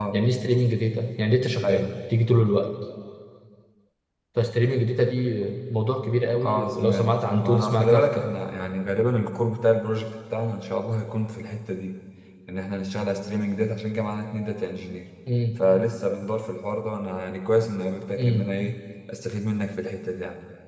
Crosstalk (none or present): present